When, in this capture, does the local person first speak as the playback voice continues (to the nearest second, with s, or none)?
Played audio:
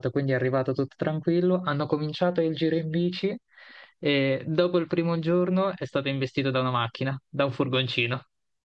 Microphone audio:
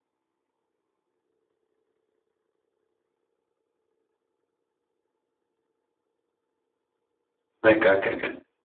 8 s